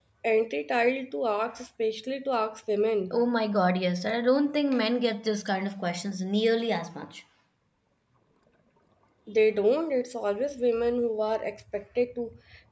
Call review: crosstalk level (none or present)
none